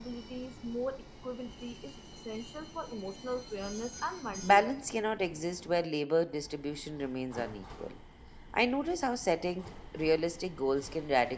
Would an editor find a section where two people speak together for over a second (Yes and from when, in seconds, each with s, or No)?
No